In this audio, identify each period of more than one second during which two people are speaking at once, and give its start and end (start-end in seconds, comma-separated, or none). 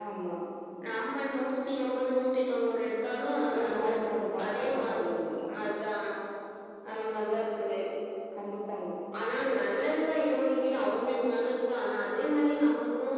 3.6-5.0